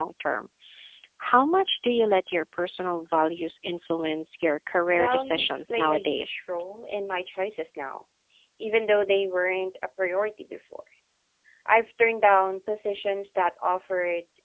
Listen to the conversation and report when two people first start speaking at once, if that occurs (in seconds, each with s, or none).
4.9 s